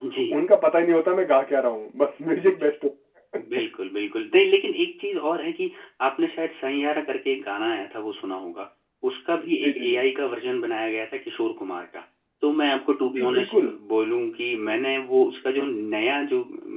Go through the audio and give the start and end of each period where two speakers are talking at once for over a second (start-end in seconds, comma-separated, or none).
none